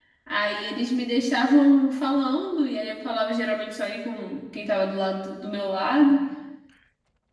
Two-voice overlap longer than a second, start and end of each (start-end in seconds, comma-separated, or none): none